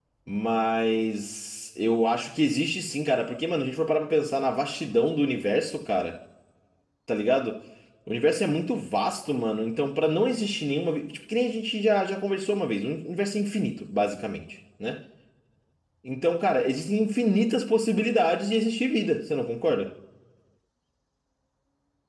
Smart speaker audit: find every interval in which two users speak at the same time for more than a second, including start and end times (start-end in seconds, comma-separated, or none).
none